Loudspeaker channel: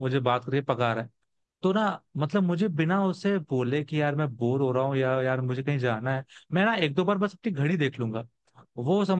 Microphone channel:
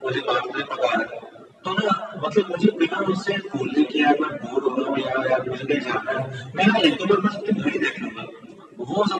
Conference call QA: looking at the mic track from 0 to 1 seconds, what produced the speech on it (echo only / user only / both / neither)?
echo only